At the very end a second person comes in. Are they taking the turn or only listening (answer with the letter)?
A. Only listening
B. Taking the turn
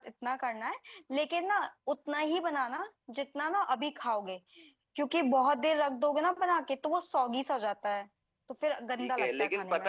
B